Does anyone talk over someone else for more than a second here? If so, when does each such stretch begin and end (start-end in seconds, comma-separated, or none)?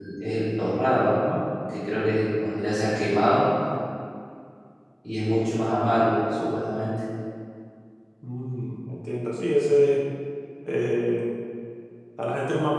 none